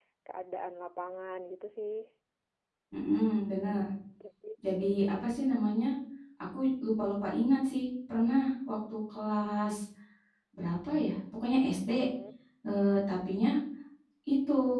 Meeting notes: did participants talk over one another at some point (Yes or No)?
No